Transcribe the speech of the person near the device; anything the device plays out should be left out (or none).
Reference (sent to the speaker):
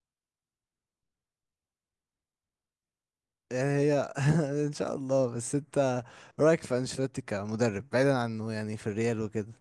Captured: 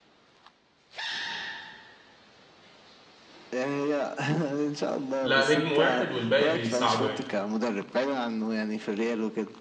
لا نجم واحد والباقي بيساعده يعني